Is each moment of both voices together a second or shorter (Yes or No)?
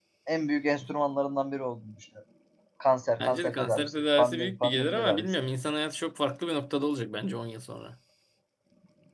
No